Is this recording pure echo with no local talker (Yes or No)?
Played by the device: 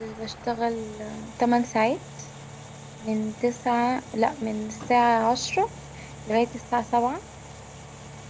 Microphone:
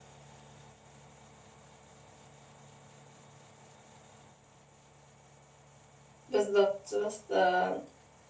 No